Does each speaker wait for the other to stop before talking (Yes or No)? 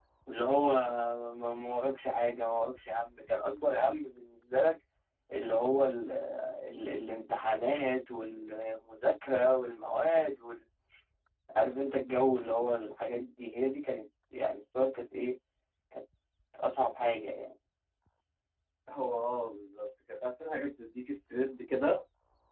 Yes